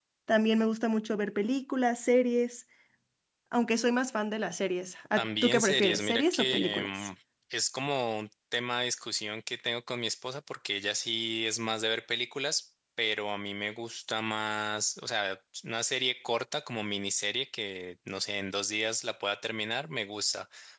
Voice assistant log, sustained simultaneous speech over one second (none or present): present